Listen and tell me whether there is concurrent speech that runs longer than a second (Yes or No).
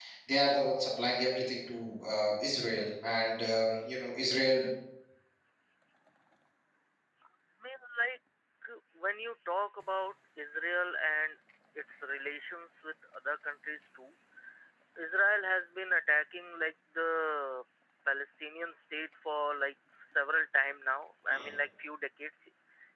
No